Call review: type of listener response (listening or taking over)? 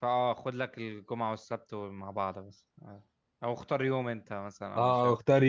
taking over